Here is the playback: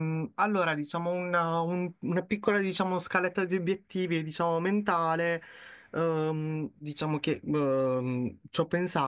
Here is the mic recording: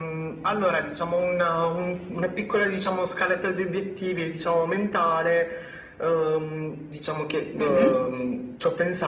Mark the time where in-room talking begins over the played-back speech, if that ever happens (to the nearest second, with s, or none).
8 s